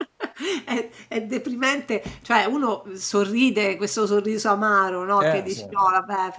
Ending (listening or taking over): listening